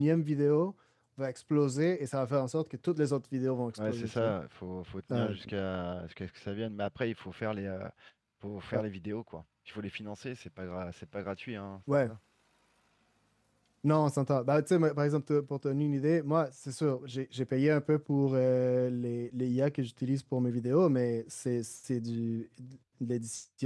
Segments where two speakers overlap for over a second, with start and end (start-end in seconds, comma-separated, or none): none